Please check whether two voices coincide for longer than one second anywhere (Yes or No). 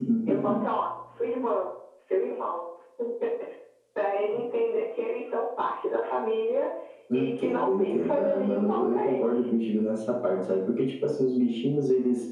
Yes